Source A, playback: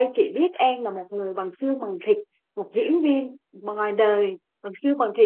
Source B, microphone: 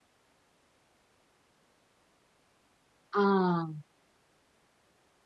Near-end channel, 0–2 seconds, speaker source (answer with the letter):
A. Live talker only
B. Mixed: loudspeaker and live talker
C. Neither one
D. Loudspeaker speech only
C